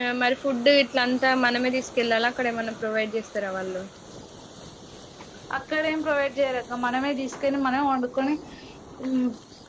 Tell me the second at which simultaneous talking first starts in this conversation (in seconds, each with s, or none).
none